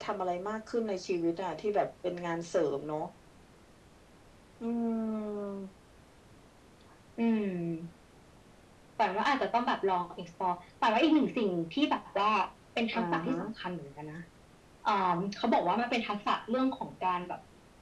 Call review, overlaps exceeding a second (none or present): none